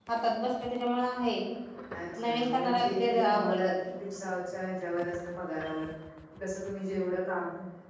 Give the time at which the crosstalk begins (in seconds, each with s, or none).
2.2 s